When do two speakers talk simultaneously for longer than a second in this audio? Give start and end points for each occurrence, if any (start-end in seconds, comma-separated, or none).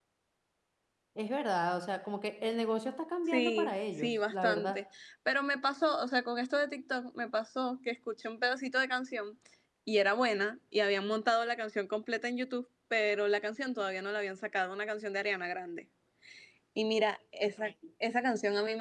3.3-4.8